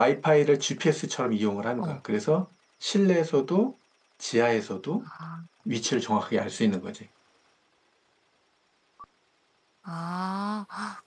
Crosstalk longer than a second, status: none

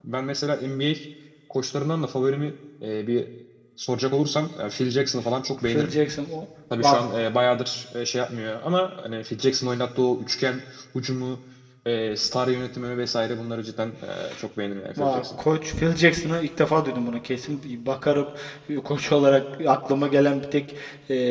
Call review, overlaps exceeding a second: none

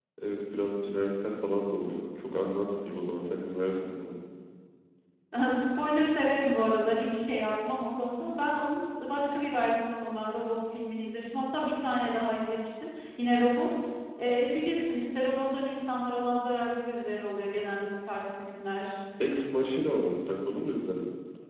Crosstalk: none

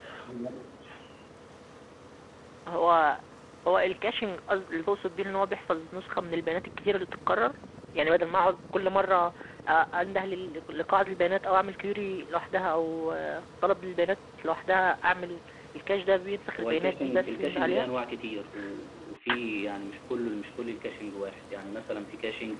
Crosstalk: present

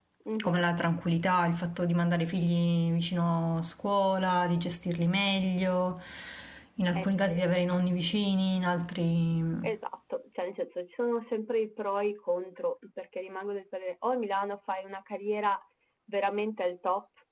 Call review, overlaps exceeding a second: none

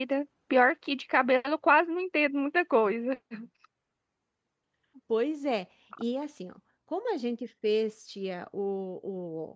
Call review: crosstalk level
none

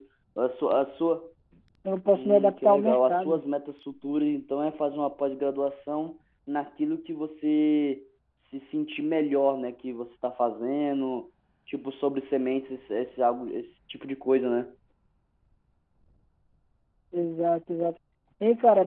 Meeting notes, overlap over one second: present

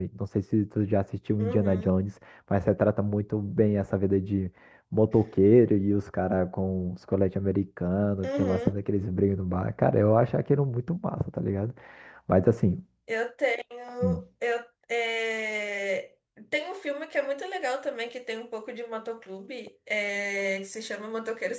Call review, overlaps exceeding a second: none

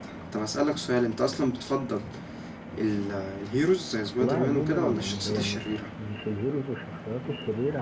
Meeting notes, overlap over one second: present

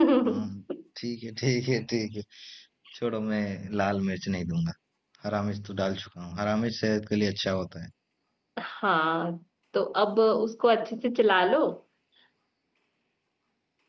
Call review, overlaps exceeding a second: none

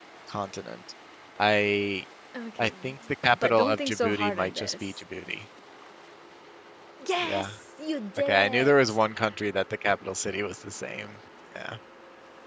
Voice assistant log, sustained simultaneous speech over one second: present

